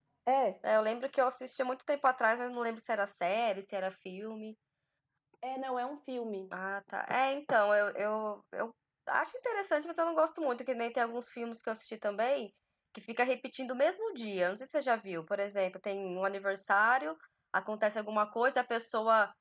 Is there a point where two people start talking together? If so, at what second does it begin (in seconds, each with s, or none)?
none